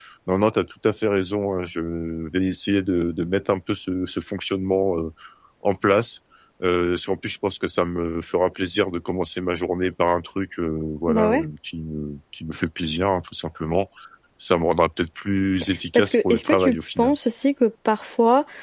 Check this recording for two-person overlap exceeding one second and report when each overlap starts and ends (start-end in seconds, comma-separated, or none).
15.9-17.2